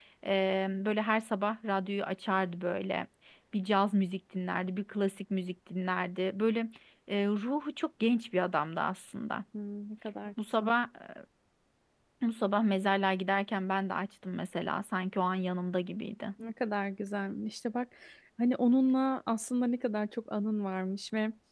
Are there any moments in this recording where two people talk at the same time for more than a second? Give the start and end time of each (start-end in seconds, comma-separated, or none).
none